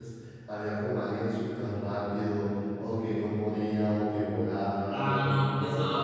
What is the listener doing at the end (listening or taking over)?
taking over